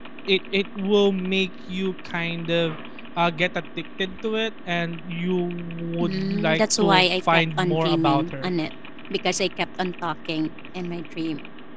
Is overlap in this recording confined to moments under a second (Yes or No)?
No